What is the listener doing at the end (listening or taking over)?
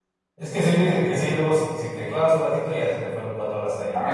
taking over